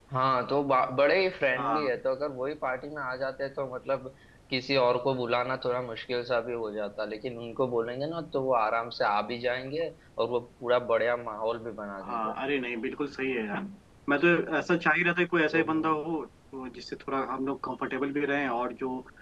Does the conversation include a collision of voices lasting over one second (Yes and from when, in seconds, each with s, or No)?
No